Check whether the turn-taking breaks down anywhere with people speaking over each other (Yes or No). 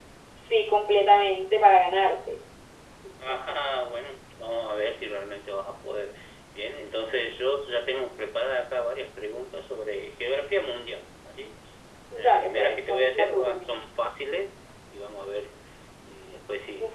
Yes